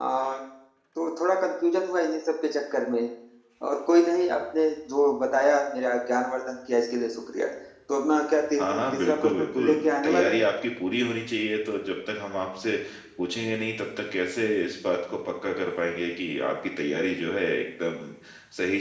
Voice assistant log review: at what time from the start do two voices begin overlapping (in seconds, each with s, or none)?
8.6 s